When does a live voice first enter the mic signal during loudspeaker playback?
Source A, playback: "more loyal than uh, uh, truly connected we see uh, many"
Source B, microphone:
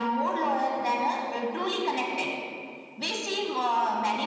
none

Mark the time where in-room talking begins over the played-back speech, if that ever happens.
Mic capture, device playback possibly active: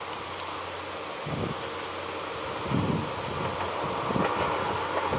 none

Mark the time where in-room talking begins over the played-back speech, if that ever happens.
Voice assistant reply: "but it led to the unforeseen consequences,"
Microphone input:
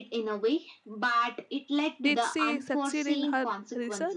2.0 s

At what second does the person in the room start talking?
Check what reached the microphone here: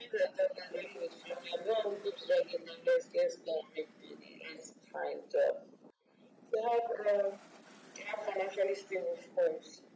none

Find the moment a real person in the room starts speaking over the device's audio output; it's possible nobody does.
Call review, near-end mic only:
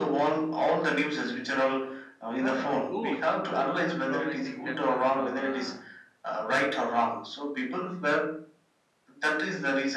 2.4 s

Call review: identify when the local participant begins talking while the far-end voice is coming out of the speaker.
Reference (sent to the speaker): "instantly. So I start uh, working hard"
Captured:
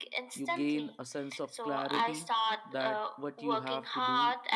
0.3 s

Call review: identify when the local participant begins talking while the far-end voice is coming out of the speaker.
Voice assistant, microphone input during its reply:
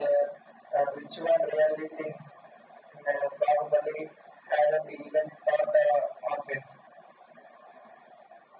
none

